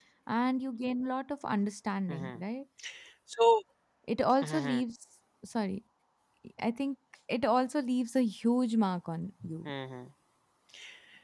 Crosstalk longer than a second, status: none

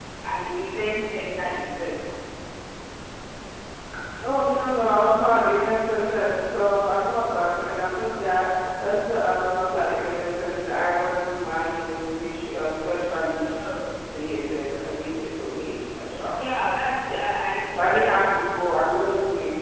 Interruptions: none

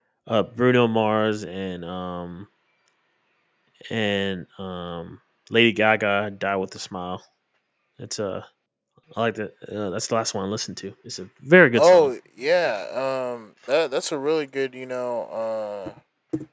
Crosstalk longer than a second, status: none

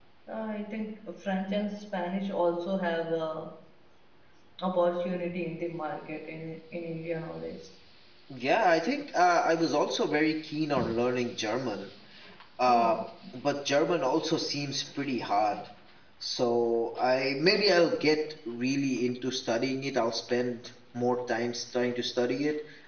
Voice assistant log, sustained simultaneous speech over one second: none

